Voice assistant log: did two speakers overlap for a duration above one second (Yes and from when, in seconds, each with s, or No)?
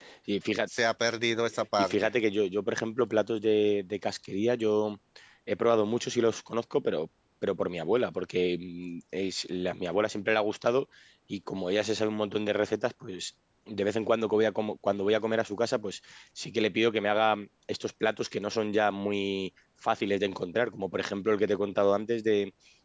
No